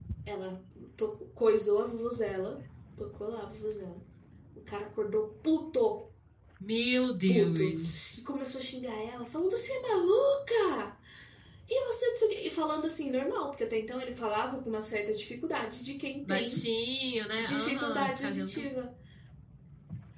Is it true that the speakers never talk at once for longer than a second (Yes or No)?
No